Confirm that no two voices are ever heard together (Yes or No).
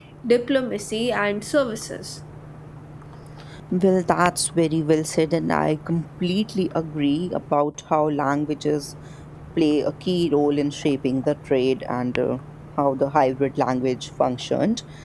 Yes